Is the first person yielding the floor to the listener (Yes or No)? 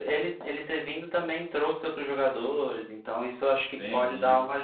Yes